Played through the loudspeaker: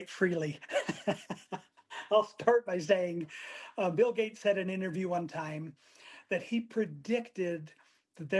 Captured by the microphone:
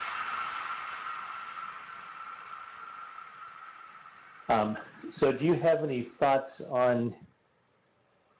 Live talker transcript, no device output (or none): Um, so, do you have any thoughts on?